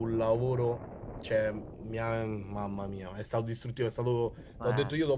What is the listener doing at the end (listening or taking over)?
listening